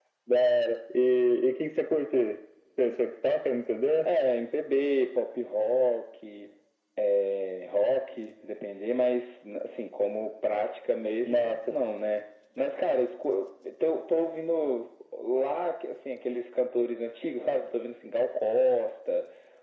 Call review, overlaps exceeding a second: none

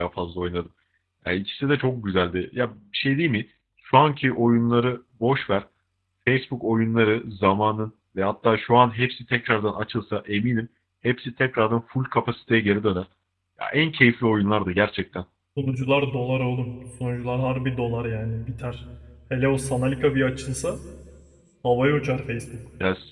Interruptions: none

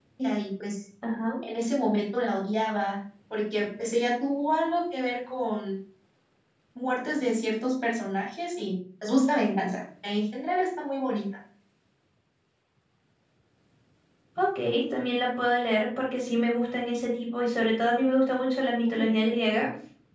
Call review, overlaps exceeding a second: none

